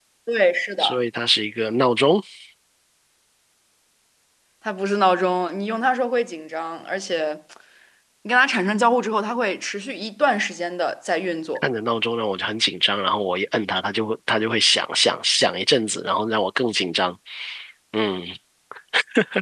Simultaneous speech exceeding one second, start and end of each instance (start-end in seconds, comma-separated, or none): none